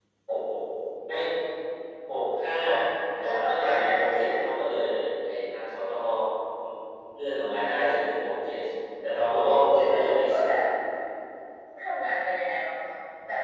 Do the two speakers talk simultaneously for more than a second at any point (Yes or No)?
Yes